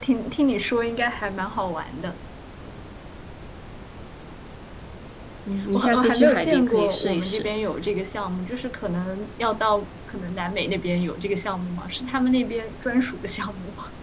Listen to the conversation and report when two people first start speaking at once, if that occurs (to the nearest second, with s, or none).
6 s